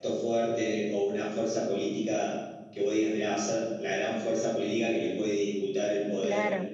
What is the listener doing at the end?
taking over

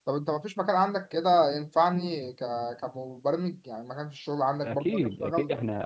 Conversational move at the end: taking over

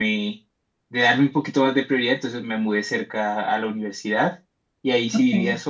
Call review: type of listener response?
listening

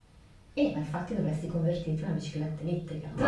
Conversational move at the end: taking over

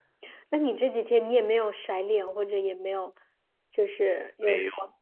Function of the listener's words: taking over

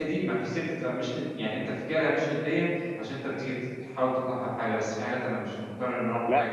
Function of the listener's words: taking over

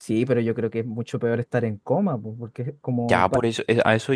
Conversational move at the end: taking over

